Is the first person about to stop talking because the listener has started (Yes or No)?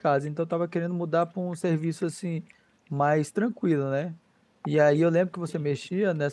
No